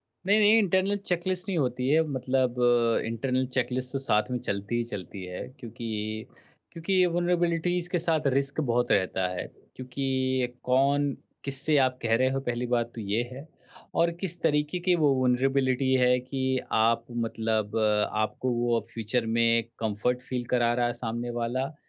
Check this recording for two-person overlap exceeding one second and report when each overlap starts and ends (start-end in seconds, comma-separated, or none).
none